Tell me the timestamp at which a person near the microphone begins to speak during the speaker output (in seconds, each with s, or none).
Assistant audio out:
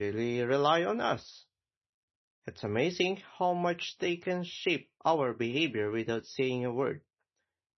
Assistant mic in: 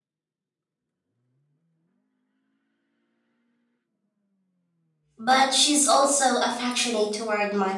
5.2 s